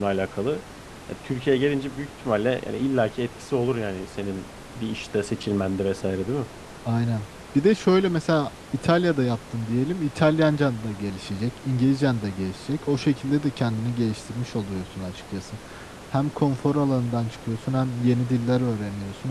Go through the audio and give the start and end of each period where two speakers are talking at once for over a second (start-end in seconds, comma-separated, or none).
none